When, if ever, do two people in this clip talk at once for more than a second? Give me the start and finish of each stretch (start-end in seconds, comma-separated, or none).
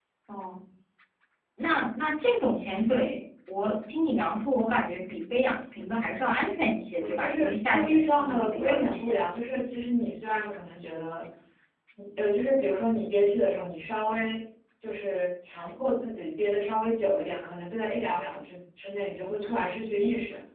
7.0-9.2